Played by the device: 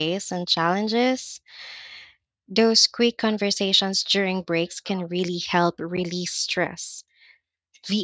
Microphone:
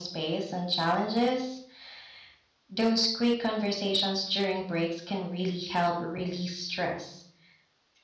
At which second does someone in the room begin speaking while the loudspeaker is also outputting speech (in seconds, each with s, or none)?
none